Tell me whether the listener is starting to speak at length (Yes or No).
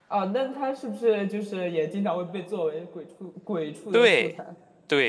Yes